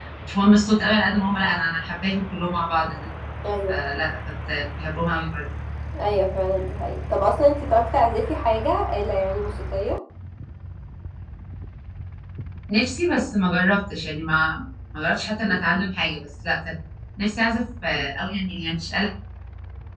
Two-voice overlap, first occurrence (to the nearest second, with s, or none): none